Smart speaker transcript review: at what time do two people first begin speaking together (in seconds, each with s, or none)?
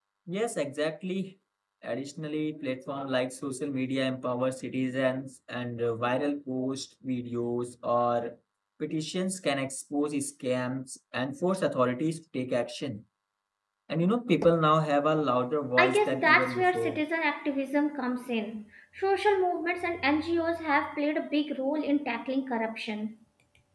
15.8 s